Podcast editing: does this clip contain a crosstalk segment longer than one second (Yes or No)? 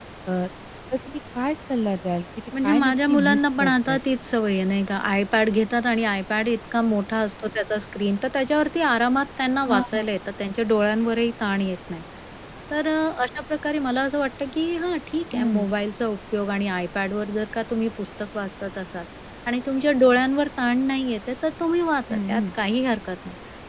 Yes